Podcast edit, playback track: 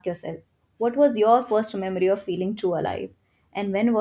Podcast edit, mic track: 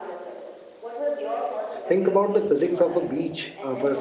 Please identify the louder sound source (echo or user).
user